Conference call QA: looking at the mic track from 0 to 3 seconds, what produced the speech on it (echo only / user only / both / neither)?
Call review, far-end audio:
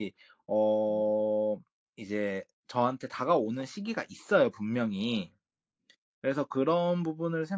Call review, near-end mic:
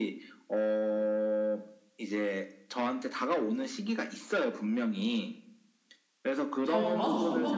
echo only